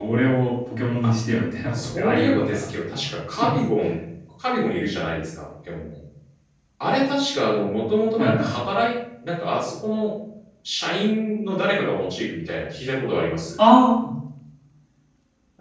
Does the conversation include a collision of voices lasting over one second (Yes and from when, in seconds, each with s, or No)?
Yes, from 1.7 s